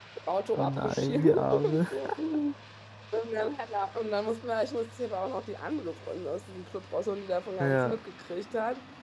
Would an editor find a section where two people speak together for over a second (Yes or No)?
Yes